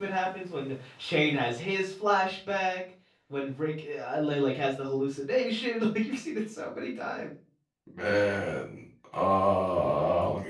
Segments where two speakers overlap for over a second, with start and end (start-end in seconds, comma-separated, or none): none